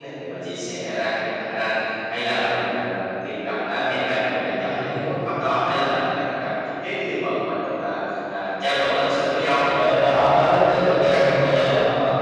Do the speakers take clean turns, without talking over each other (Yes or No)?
No